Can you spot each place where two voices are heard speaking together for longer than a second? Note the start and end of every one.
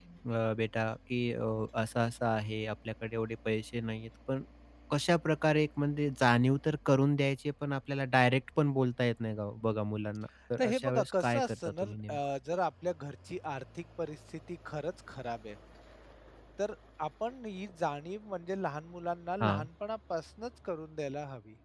10.6-12.2

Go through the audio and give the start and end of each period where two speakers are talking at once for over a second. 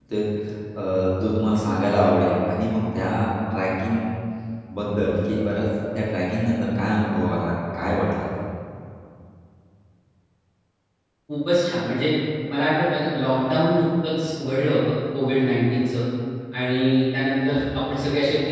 none

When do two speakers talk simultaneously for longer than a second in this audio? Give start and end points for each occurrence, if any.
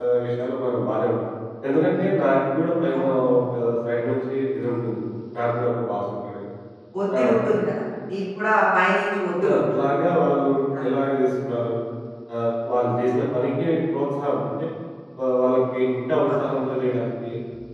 none

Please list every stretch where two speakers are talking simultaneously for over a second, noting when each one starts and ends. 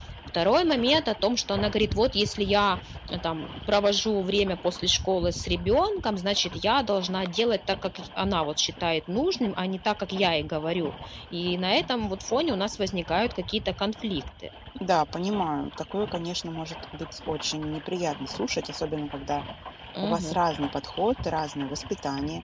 none

